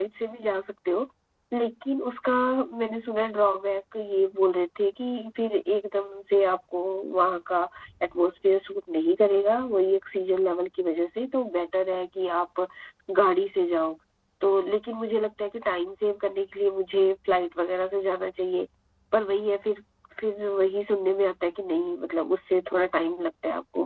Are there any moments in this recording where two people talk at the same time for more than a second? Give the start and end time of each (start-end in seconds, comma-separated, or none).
none